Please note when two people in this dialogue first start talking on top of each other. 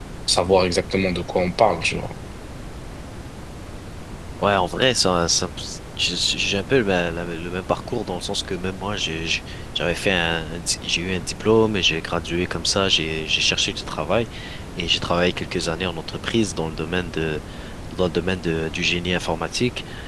none

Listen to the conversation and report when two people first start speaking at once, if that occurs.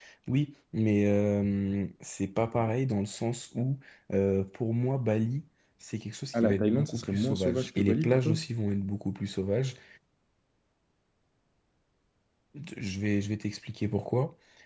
6.3 s

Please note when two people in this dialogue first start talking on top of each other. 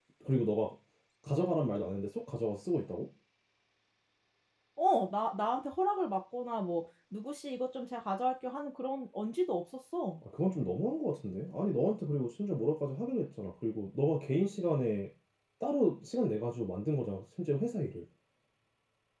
none

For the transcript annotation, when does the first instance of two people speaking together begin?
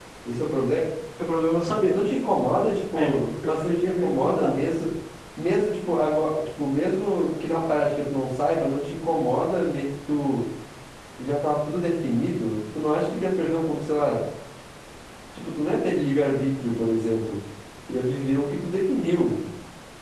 3.0 s

